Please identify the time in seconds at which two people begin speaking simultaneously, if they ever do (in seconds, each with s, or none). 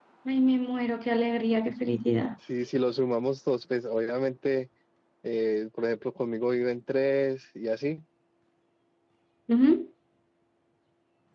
none